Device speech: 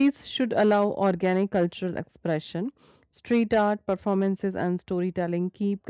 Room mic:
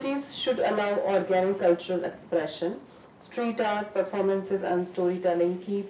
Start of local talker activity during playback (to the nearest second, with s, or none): none